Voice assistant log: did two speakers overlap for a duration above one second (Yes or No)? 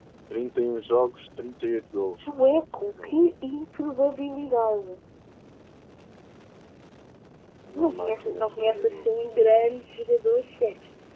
Yes